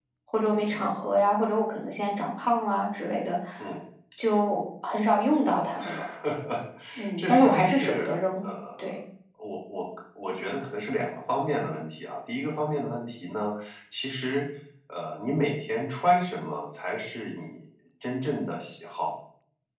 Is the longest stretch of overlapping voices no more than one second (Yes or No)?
No